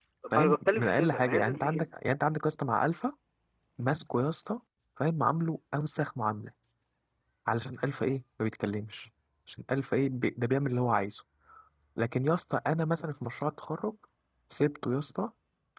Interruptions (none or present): present